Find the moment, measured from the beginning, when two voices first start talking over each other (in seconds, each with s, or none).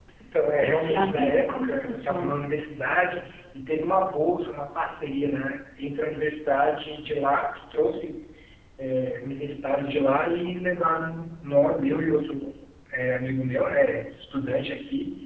0.6 s